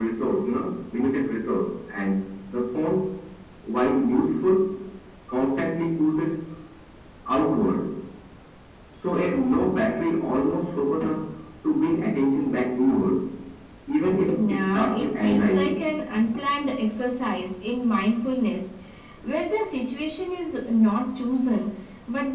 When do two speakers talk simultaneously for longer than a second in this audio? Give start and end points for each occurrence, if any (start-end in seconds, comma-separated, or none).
14.5-15.8